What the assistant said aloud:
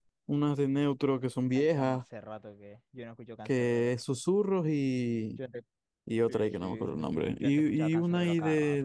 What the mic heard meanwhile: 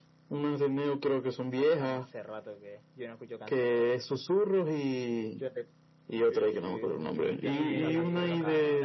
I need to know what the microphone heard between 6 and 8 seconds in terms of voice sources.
both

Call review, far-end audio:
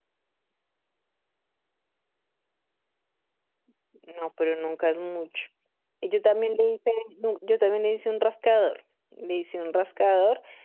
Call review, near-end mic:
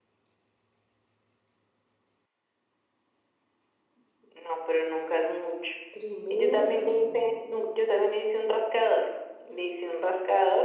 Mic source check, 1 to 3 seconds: neither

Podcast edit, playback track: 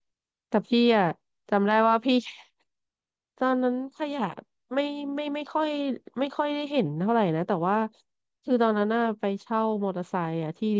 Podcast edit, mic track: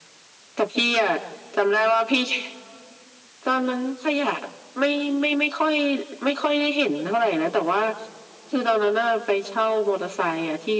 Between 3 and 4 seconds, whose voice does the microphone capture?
echo only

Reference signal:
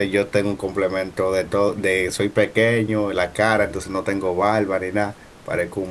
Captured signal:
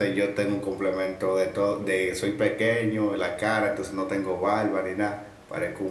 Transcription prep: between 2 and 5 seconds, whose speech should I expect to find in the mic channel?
echo only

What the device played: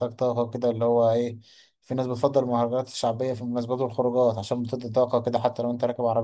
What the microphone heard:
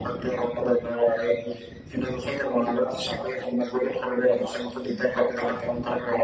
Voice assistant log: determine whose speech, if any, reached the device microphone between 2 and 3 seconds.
echo only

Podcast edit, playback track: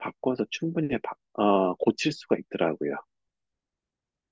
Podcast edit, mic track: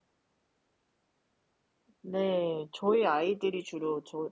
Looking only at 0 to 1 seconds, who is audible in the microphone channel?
neither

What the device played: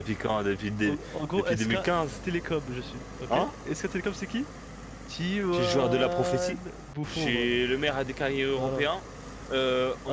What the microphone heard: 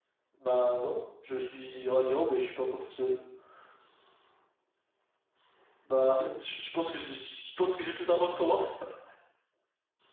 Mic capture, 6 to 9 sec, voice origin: user only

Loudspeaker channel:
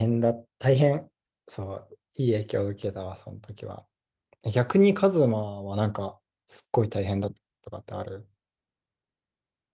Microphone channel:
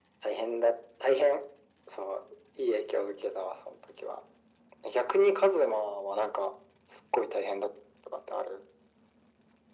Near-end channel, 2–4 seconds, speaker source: echo only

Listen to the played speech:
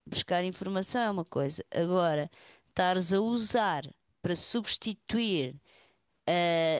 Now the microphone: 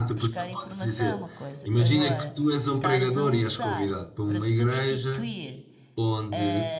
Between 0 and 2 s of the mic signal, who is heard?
both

